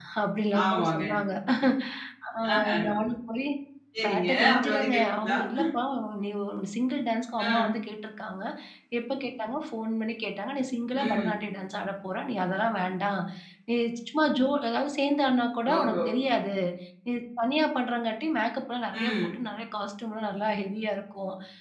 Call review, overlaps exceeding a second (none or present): present